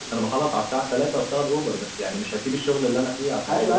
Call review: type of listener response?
taking over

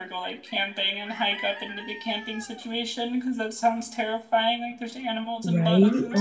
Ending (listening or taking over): taking over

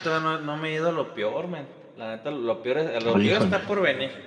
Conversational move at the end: listening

